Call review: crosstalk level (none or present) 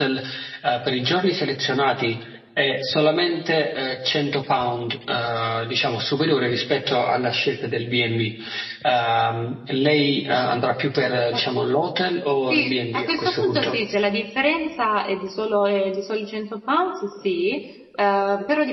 present